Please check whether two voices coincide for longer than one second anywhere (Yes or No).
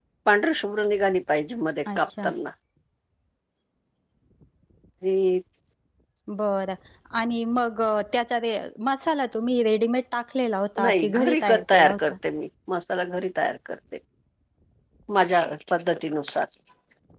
Yes